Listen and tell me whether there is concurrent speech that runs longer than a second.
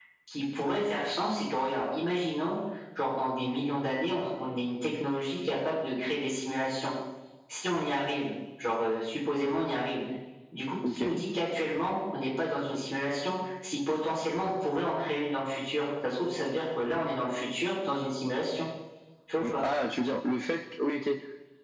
No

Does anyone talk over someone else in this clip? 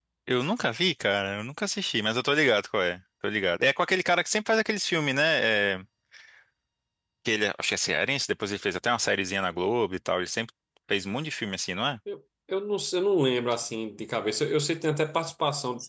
No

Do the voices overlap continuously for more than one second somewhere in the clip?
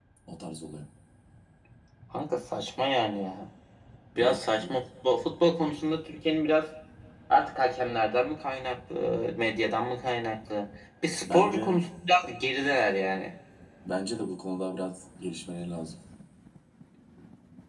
No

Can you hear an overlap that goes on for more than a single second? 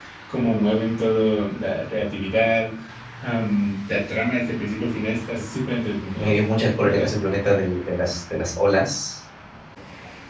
No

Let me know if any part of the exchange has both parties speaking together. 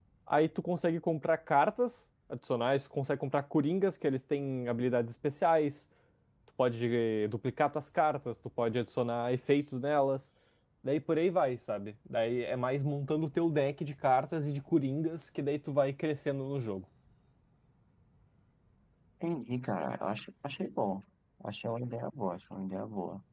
No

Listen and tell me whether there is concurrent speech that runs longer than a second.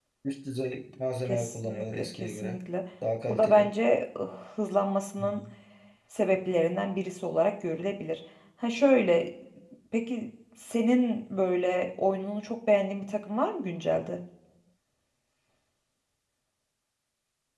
Yes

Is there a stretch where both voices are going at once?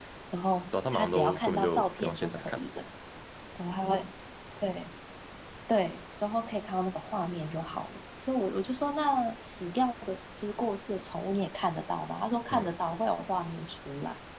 Yes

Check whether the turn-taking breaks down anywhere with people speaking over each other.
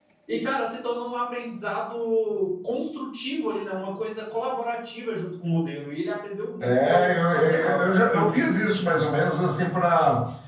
Yes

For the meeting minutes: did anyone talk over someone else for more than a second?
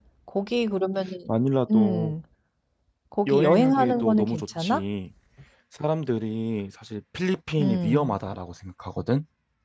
Yes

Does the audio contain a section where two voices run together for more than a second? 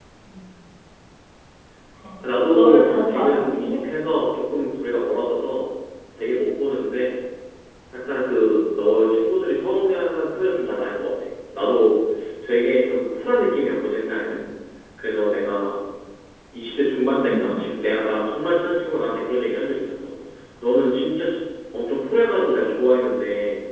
Yes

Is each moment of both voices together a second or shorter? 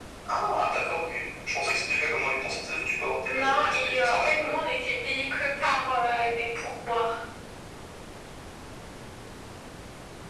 No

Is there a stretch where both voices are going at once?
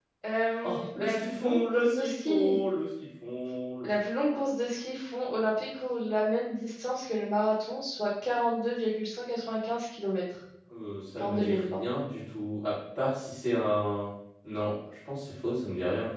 Yes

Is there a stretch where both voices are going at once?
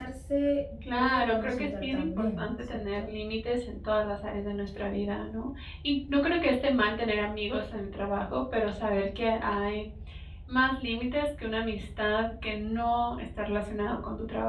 Yes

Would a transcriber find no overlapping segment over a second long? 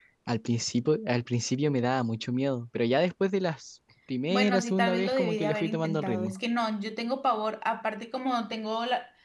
No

